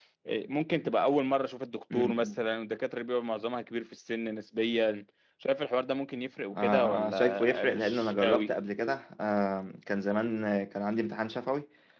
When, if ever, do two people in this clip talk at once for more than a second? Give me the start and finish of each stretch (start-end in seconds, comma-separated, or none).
6.5-8.5